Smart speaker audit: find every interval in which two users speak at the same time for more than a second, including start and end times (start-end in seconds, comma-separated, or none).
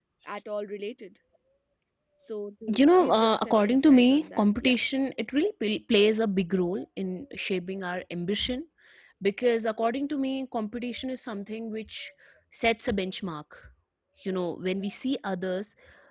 2.8-4.8